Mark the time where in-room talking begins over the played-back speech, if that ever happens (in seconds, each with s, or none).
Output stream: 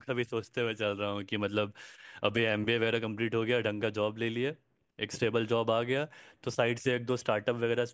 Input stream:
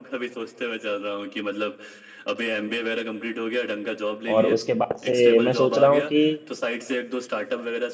4.3 s